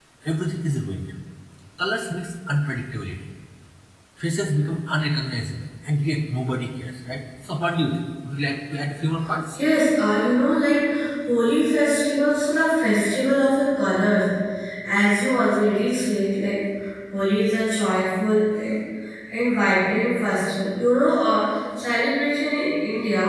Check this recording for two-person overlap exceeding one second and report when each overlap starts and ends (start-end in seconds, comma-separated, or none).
none